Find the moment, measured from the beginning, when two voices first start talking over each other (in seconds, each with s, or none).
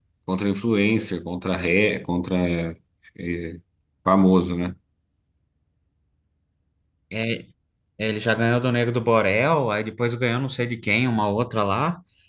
none